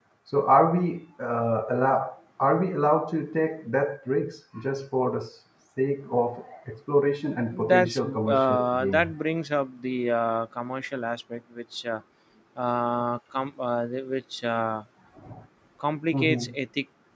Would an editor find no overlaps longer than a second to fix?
No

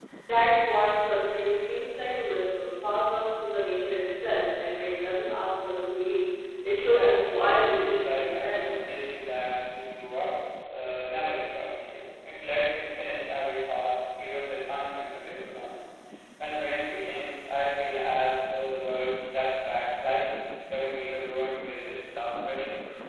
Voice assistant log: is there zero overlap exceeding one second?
No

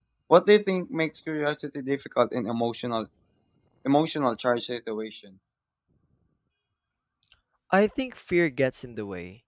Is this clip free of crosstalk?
Yes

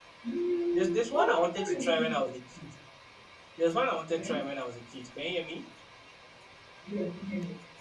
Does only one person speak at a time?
No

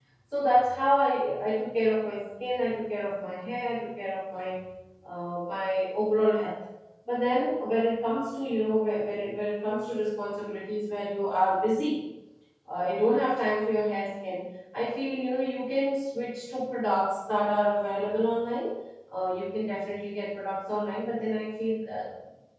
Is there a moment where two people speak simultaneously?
No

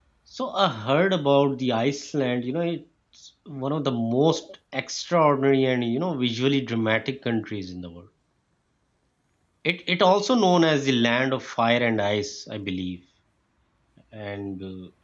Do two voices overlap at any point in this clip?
No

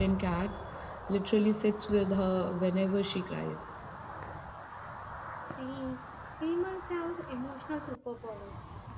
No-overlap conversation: Yes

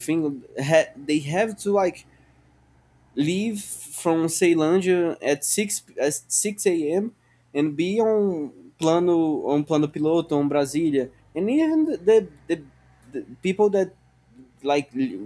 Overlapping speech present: No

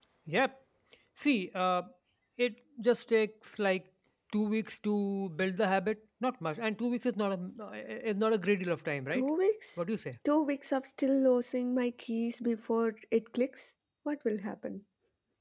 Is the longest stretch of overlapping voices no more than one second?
Yes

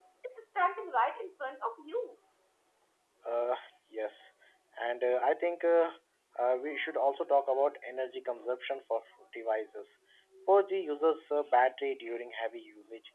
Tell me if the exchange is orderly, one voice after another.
Yes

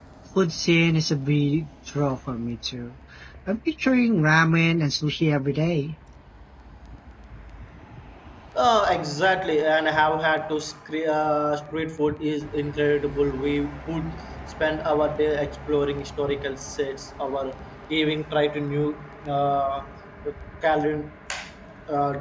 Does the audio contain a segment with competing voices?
No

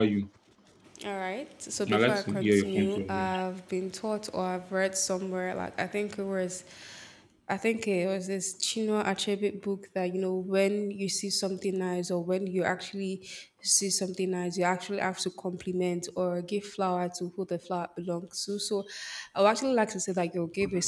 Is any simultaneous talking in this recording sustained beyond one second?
Yes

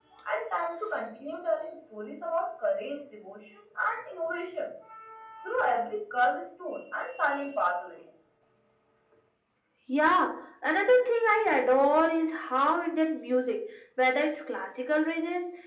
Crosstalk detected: No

